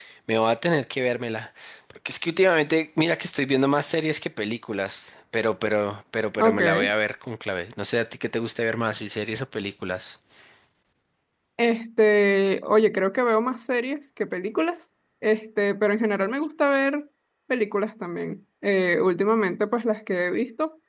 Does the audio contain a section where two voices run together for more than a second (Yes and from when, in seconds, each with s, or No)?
No